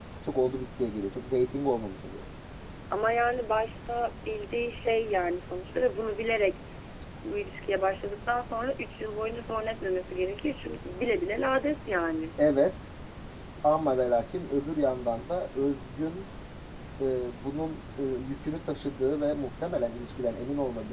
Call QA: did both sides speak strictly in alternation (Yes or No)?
Yes